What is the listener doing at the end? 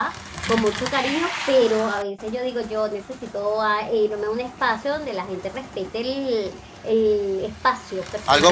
taking over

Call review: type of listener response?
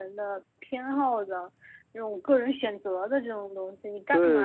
listening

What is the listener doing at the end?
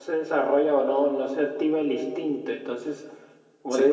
listening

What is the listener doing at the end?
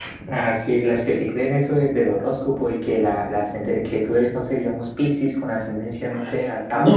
taking over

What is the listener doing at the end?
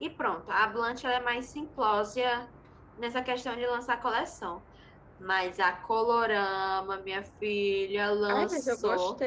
taking over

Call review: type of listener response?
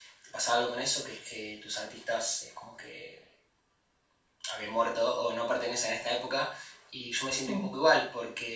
listening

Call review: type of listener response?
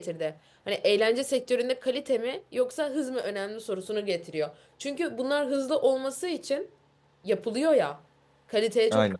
listening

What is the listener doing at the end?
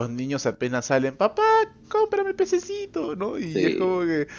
listening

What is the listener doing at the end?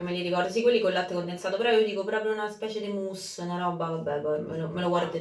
taking over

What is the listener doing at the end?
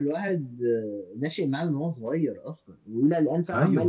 listening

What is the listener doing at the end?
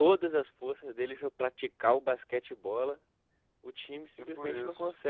listening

